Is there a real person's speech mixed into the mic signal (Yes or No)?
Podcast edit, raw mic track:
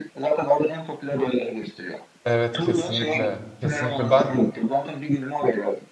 Yes